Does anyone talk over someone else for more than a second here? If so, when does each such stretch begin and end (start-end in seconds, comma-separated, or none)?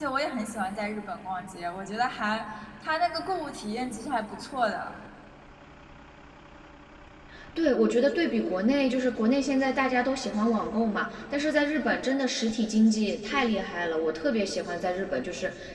none